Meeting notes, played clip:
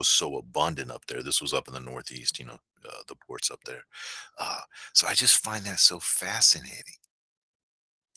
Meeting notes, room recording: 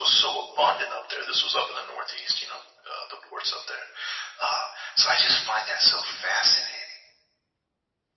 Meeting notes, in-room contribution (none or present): none